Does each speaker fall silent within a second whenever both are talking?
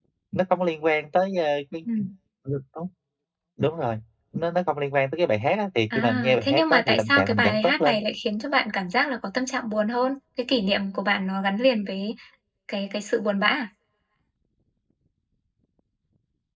No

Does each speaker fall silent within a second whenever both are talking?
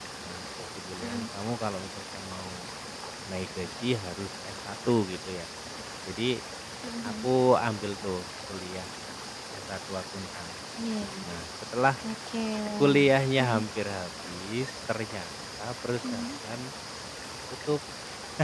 Yes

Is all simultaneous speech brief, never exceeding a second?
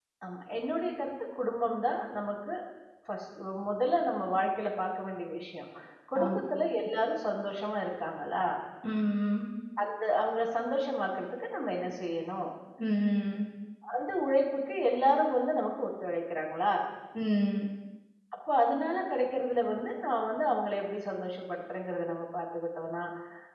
Yes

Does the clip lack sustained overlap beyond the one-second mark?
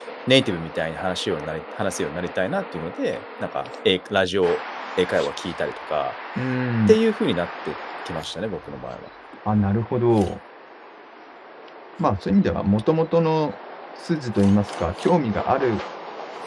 Yes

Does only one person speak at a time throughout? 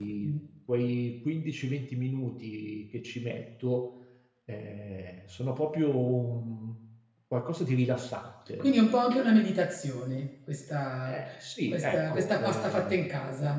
No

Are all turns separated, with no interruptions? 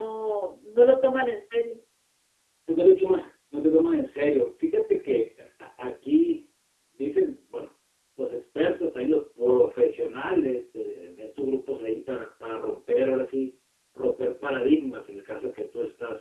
Yes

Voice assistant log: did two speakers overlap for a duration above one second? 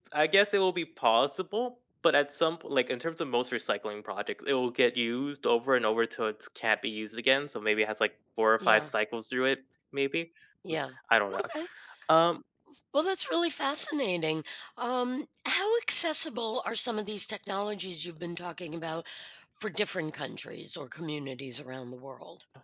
No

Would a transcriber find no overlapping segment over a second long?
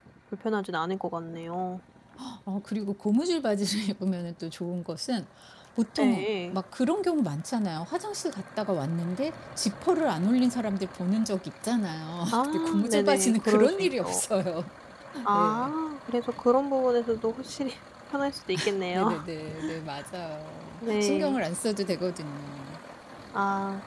No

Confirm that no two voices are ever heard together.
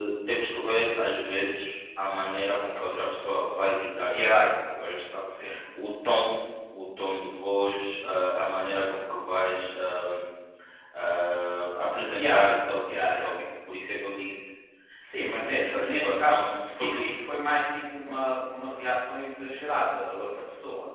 No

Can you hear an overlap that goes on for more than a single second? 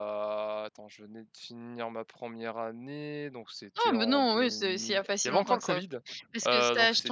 Yes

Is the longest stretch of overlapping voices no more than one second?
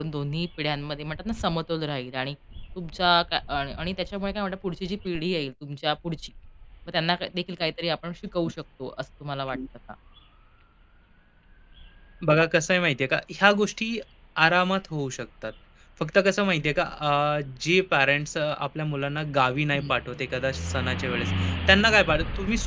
Yes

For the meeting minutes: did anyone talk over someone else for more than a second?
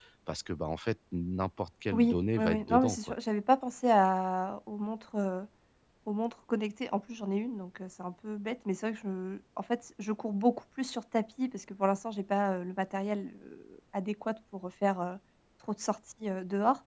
Yes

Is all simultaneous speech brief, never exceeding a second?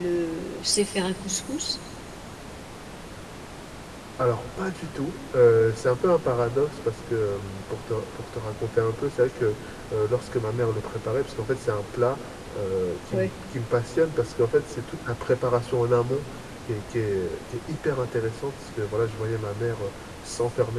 Yes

